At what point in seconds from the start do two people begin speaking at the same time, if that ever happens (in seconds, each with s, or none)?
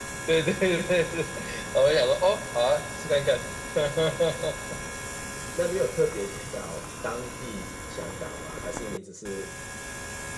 none